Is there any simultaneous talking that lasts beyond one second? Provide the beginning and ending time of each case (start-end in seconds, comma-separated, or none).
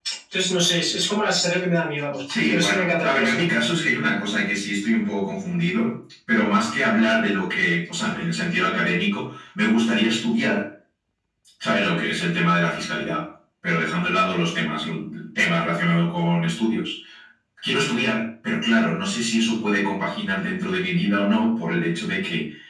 2.3-3.5